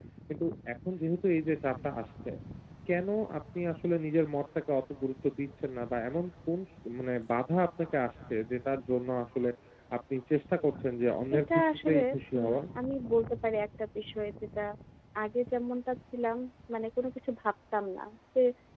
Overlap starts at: 11 s

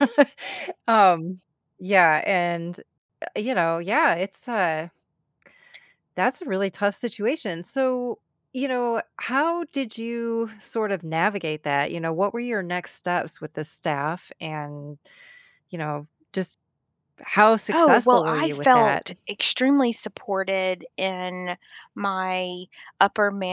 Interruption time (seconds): 18 s

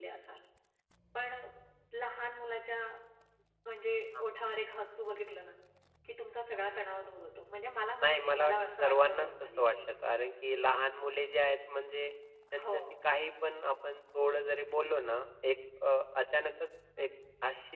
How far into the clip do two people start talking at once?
8 s

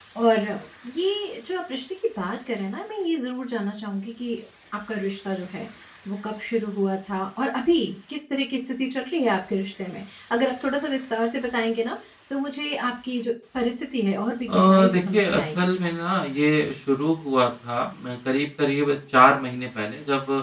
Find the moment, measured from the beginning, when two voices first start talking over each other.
14 s

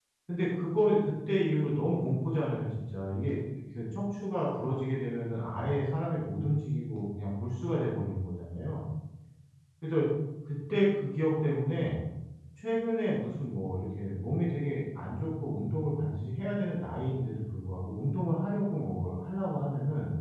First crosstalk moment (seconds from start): none

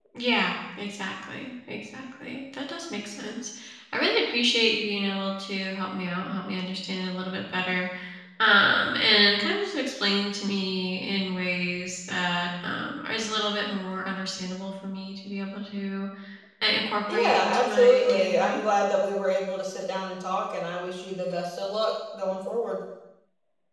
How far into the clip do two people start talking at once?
17 s

